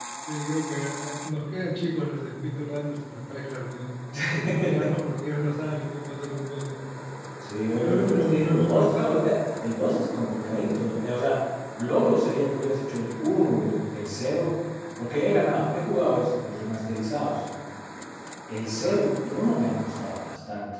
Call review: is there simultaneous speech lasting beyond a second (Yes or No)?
Yes